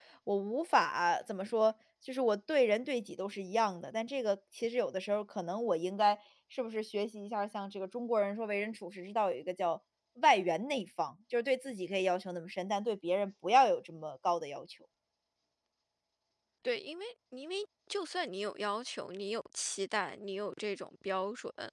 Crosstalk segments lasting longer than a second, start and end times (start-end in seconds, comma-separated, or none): none